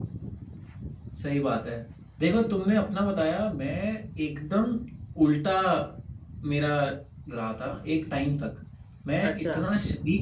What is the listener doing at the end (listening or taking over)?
listening